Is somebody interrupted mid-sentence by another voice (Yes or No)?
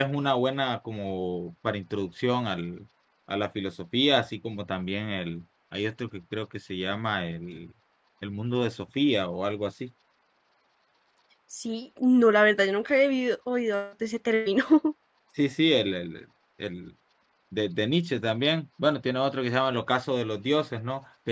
No